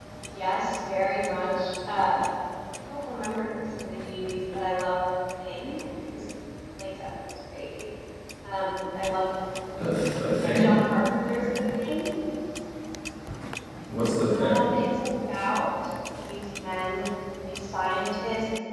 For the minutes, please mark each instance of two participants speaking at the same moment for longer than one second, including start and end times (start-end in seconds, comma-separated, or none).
none